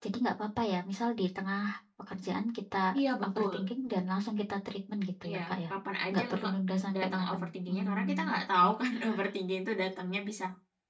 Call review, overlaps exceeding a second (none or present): present